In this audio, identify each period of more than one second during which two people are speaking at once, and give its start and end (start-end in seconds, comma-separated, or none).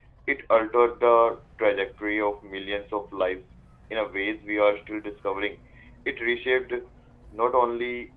none